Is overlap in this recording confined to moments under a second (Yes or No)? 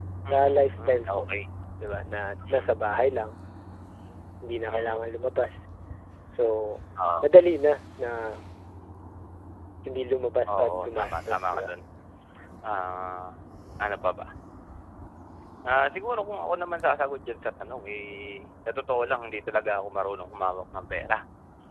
No